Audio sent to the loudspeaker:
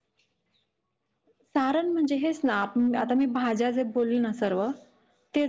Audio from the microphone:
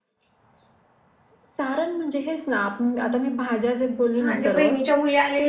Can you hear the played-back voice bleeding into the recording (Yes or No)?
Yes